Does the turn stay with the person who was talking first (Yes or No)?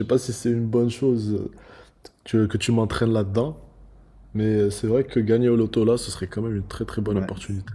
No